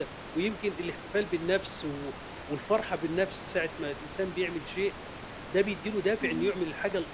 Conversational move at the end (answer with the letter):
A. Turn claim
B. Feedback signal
B